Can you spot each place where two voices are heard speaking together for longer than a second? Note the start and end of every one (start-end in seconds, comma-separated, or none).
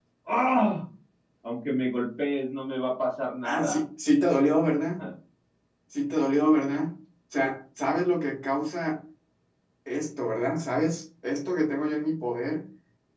none